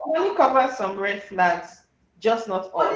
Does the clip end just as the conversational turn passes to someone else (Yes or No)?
Yes